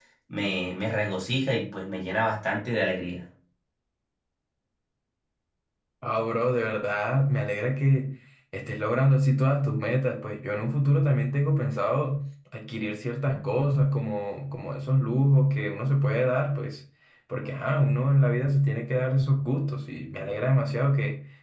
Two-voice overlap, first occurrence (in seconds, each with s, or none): none